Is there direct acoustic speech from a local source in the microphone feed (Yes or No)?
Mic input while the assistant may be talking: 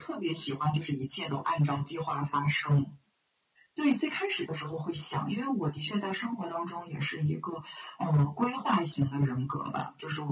No